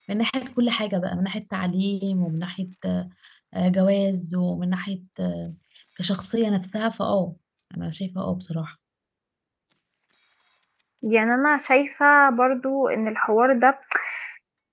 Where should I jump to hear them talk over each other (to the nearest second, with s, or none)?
none